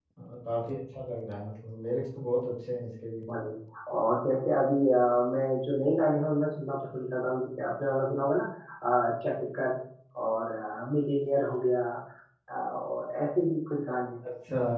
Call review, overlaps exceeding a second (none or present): none